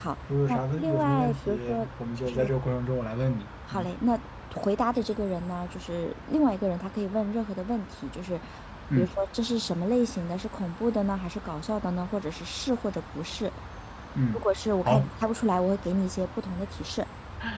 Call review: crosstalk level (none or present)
present